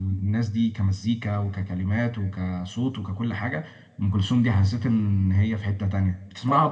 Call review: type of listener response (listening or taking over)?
taking over